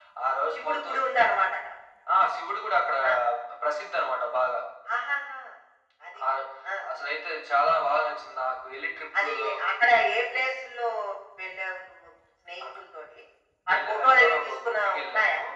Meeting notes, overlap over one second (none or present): present